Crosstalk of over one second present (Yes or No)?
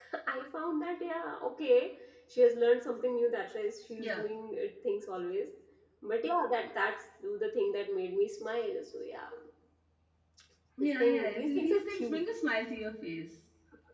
Yes